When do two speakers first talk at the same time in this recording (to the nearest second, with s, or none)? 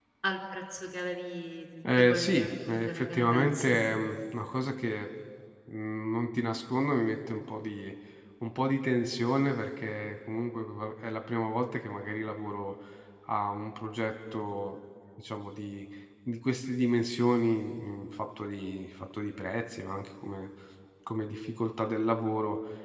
2 s